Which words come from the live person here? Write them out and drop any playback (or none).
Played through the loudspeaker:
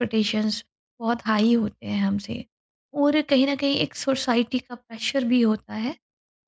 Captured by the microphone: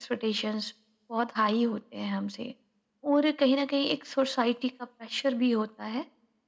none